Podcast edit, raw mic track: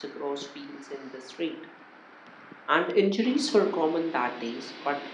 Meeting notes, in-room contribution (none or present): present